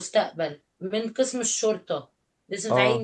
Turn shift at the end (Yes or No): No